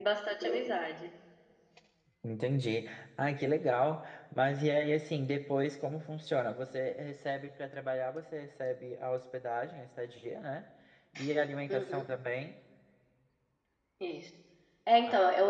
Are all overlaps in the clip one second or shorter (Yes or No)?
Yes